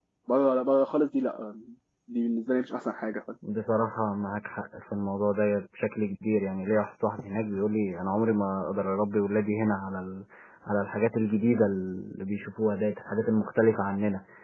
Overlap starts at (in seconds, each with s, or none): none